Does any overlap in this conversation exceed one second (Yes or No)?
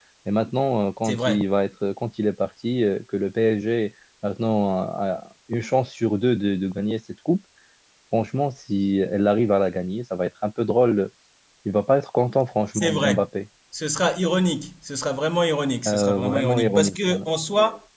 Yes